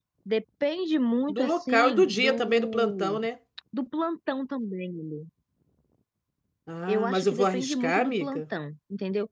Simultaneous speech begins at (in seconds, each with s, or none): 1.3 s